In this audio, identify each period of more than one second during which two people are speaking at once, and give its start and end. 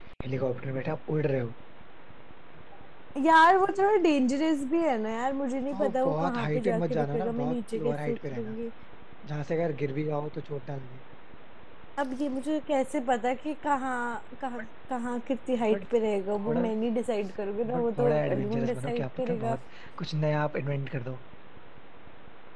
5.7-8.6, 17.8-19.6

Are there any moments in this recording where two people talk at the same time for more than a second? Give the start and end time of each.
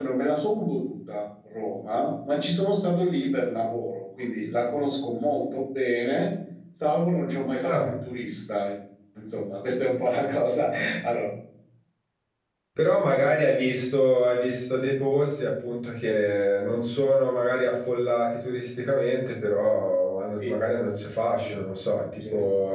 none

